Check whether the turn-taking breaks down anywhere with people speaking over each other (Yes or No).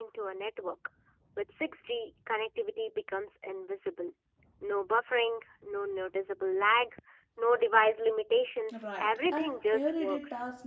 Yes